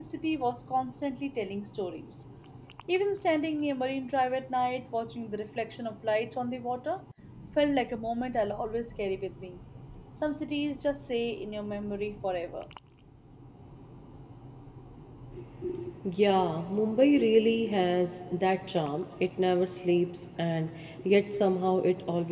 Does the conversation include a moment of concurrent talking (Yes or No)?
No